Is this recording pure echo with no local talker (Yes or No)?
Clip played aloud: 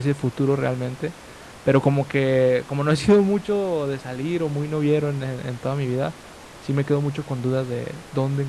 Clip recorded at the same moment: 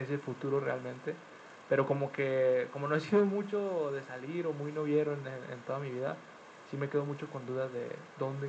Yes